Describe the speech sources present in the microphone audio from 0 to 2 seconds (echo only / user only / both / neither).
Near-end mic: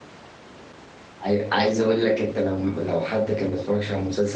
user only